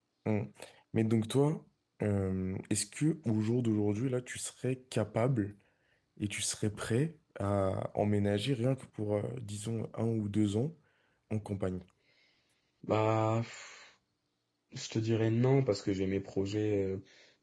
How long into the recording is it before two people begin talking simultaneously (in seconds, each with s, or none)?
none